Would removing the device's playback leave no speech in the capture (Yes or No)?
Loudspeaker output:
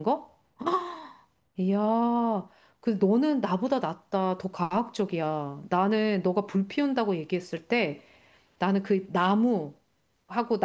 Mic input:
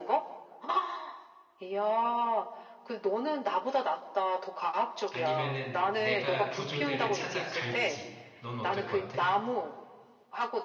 No